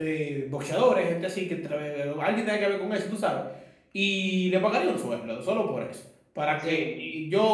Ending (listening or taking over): listening